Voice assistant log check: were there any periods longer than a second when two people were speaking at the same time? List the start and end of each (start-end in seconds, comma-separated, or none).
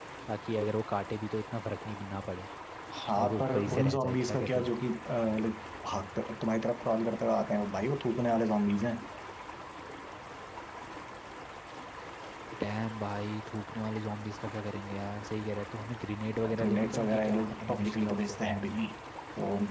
3.1-4.7, 16.5-18.4